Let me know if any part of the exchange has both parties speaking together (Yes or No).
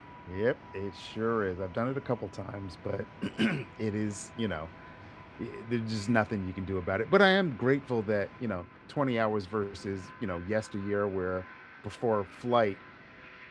No